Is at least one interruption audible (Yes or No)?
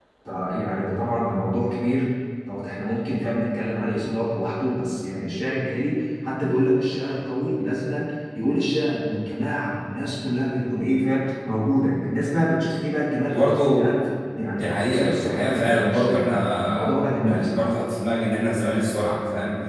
Yes